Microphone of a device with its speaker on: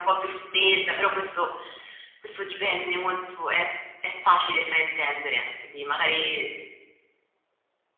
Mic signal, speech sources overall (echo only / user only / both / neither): echo only